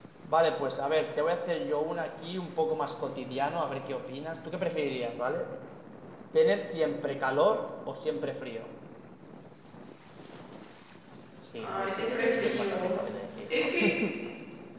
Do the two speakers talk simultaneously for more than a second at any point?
Yes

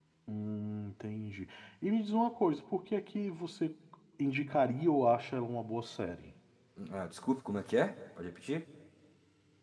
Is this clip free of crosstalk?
Yes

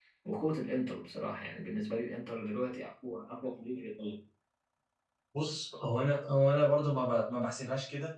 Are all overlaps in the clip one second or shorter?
Yes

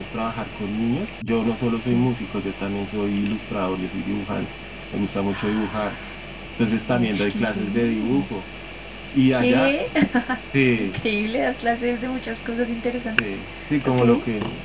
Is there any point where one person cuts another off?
Yes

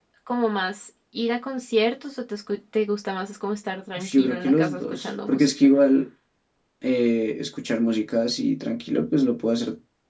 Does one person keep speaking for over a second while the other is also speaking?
Yes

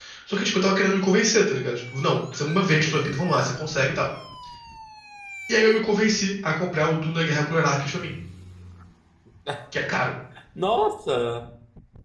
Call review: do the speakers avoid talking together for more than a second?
Yes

